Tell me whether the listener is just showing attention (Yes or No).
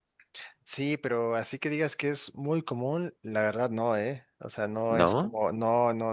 Yes